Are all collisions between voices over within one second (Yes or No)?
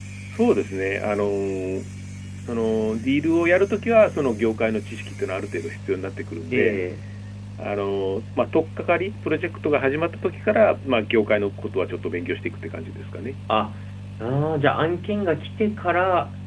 Yes